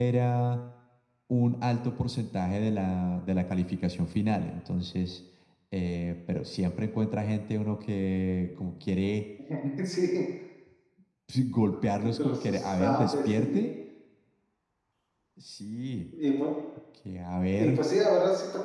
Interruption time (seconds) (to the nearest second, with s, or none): 12 s